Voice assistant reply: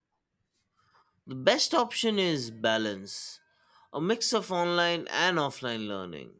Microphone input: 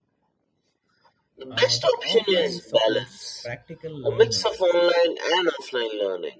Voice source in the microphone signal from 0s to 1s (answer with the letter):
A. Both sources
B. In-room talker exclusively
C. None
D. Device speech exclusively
C